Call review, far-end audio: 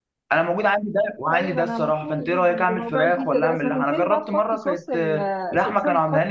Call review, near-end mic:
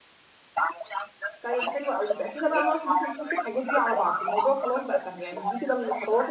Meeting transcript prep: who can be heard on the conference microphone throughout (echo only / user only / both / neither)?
both